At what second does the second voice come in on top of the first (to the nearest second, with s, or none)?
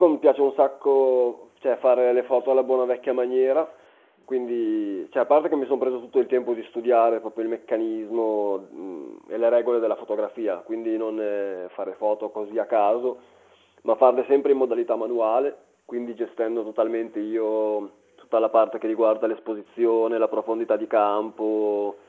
none